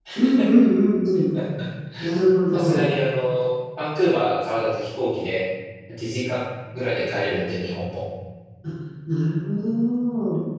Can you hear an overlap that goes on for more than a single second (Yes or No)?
No